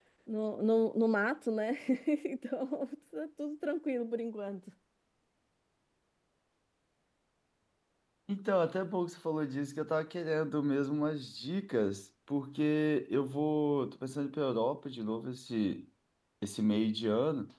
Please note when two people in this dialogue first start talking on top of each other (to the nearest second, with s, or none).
none